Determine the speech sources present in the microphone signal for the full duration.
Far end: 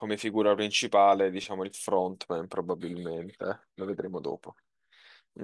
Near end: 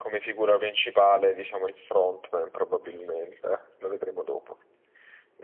echo only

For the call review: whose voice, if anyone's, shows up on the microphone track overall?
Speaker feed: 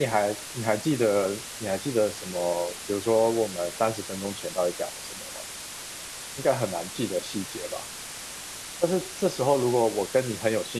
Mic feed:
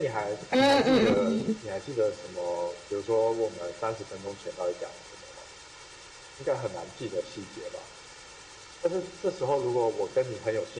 both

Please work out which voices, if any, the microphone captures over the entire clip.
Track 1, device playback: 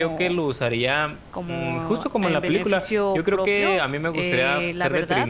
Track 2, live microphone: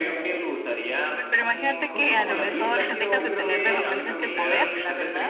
both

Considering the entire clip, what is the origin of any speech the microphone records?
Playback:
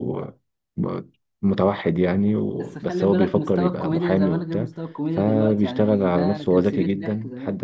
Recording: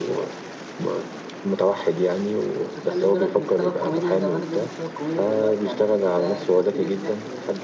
echo only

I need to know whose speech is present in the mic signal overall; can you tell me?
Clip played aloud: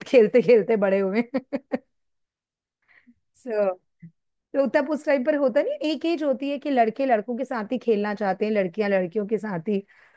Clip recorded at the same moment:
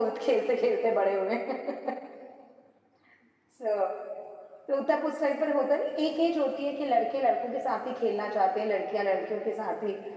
echo only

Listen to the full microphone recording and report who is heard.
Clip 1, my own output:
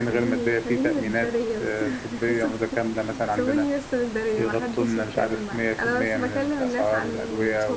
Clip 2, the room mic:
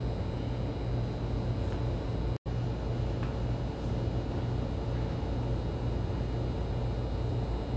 neither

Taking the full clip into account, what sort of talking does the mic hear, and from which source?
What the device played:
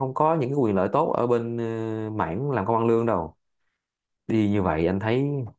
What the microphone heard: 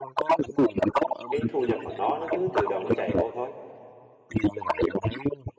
both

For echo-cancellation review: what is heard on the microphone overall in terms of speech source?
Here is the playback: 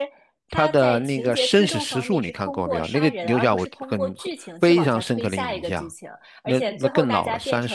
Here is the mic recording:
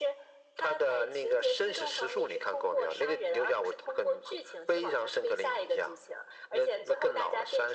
echo only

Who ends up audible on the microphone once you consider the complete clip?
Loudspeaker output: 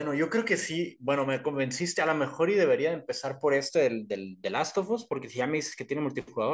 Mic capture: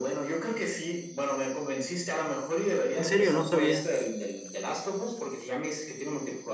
both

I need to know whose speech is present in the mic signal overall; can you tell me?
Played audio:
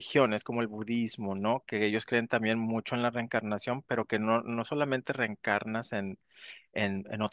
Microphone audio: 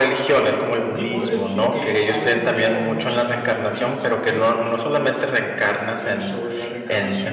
both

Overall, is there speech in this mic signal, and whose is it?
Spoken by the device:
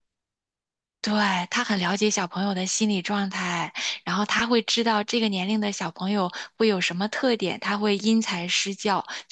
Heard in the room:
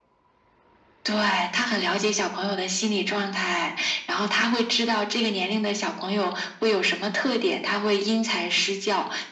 echo only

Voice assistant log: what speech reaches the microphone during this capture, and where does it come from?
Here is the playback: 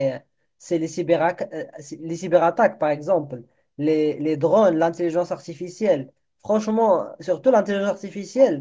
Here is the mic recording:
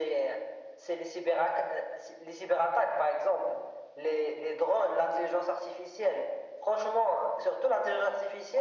echo only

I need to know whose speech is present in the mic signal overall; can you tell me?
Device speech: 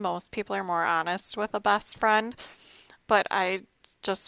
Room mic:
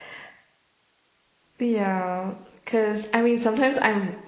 user only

